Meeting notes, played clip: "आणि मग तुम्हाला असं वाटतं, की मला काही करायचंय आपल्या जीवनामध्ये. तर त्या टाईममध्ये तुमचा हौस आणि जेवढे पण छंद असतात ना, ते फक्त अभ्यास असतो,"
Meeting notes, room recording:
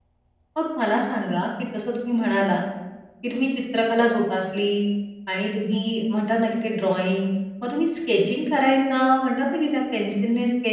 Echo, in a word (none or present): none